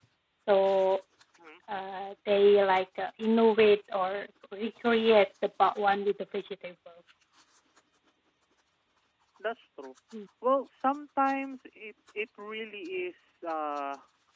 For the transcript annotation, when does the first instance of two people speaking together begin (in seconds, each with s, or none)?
none